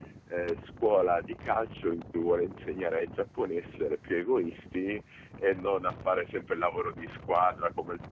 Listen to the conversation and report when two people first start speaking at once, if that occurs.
none

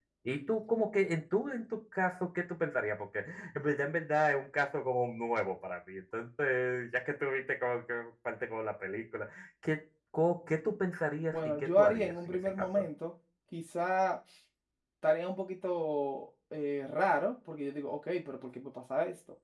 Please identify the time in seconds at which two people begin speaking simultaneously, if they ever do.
11.3 s

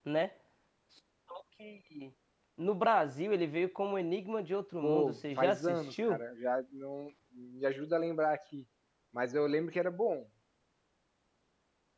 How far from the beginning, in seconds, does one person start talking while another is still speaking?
4.8 s

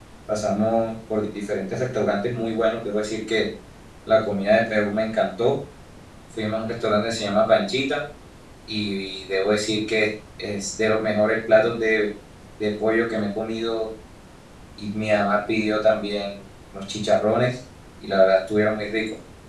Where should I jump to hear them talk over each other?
none

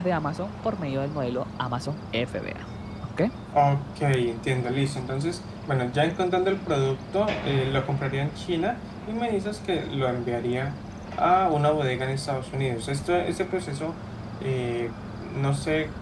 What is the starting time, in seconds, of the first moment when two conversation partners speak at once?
none

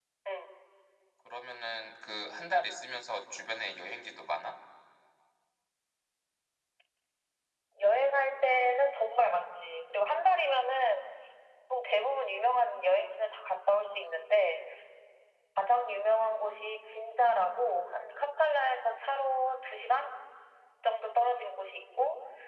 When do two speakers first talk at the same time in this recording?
none

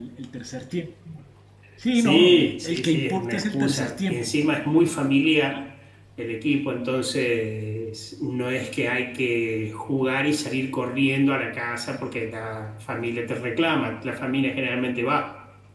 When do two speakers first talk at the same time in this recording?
2.0 s

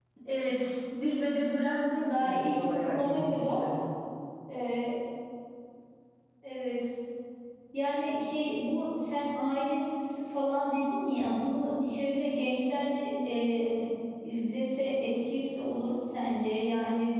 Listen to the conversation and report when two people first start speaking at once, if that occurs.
2.2 s

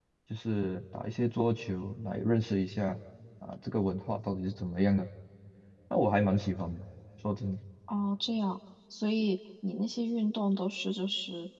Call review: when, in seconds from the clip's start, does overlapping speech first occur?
none

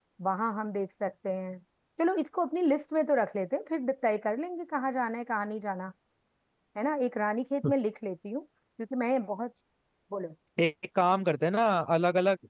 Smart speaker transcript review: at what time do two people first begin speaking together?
none

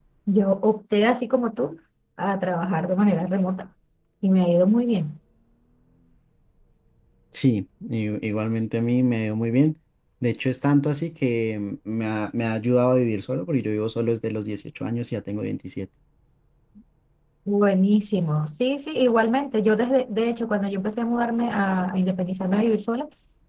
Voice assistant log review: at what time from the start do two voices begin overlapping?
none

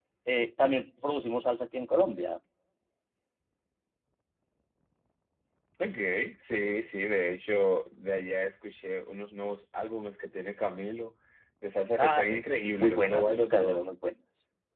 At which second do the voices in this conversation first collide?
12.0 s

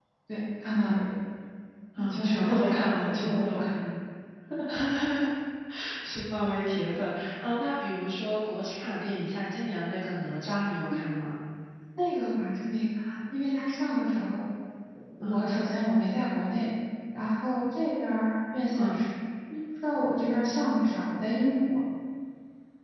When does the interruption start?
2.0 s

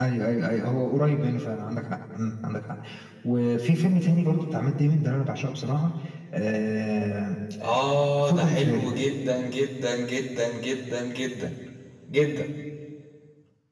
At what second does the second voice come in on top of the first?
7.6 s

